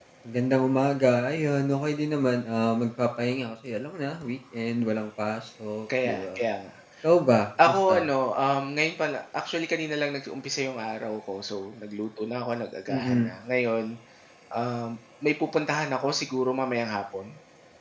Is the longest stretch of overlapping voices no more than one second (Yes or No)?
Yes